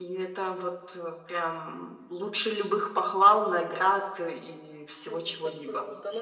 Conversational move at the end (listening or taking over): taking over